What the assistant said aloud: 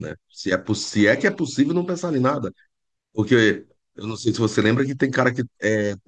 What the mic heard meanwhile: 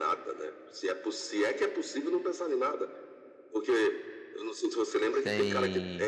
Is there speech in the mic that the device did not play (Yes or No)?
Yes